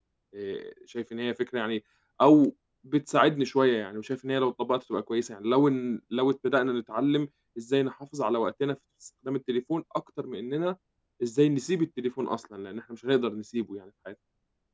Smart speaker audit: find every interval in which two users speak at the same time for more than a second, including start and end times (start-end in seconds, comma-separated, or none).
none